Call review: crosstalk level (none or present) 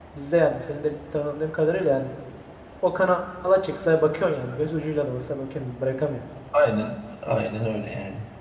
none